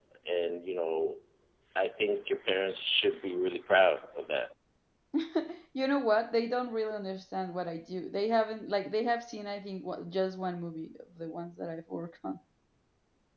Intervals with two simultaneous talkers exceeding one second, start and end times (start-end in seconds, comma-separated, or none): none